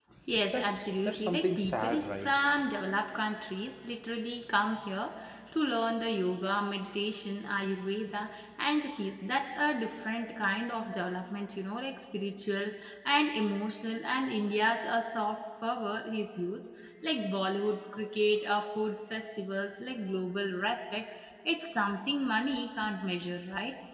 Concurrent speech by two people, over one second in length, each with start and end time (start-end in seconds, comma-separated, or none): 0.5-2.3